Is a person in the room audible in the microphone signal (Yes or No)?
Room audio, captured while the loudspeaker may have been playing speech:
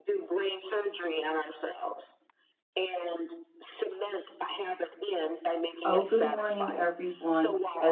Yes